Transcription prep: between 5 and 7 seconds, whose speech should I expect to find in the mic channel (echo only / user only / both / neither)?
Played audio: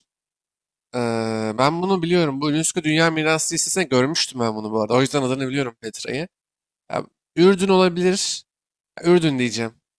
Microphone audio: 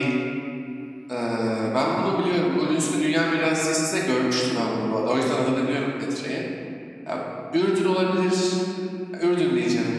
echo only